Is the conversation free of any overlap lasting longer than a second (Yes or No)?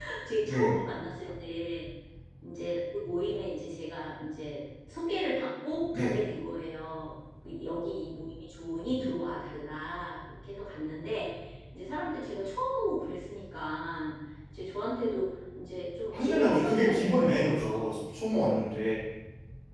No